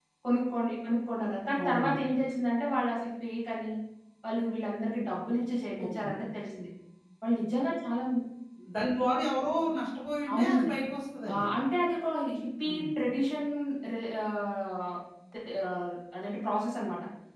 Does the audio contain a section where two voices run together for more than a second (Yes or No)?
No